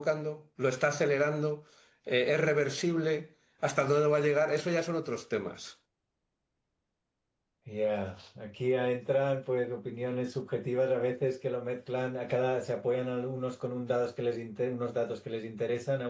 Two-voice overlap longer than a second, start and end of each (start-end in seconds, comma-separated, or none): none